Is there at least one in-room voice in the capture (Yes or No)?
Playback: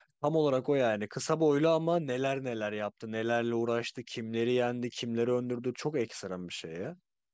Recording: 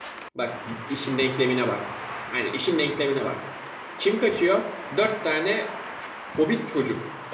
Yes